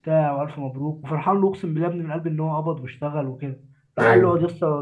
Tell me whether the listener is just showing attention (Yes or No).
Yes